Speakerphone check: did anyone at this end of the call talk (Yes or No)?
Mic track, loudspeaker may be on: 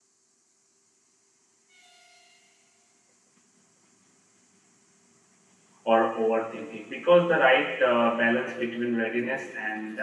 Yes